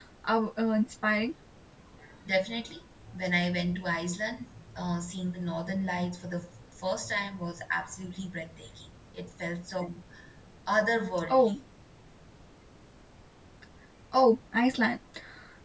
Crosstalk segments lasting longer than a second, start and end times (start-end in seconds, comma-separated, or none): none